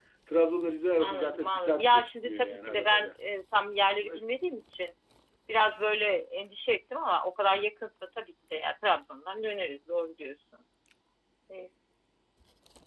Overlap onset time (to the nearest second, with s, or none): 1 s